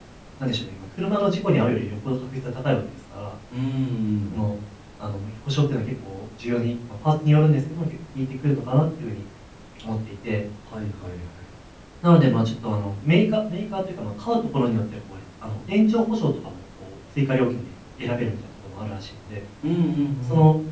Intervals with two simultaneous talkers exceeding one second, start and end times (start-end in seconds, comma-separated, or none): none